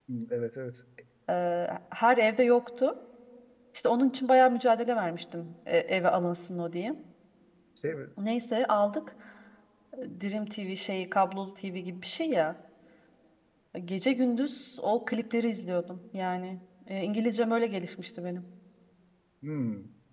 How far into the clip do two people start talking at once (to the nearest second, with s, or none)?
none